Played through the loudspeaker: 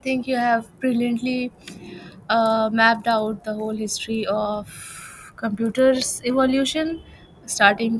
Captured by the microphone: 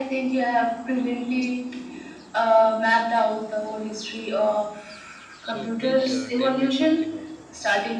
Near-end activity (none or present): present